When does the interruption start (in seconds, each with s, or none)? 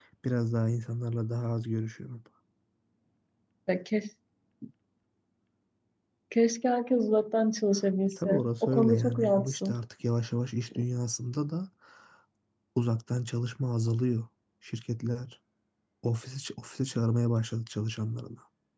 8.2 s